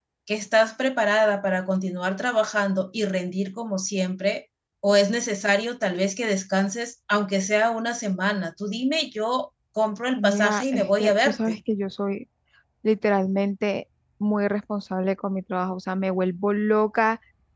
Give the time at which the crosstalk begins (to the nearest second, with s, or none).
10 s